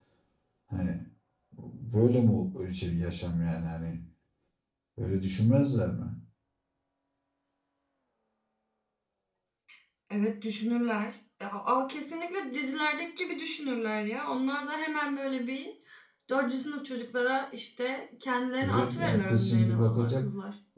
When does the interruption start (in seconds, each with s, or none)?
18.6 s